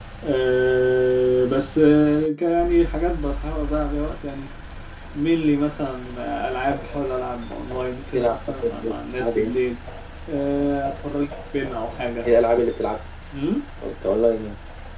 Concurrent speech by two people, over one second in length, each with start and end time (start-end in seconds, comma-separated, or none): 8.1-9.5